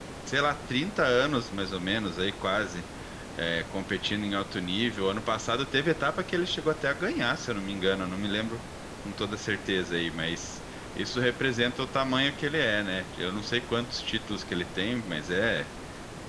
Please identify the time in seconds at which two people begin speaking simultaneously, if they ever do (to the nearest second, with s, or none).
none